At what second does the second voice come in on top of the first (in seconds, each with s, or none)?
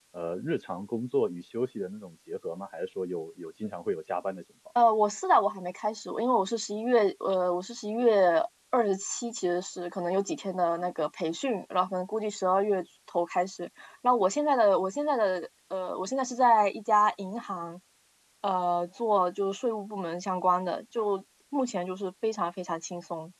none